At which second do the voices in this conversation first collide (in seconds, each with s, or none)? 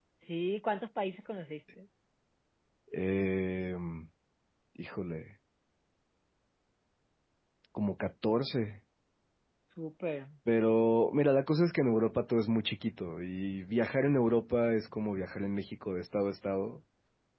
none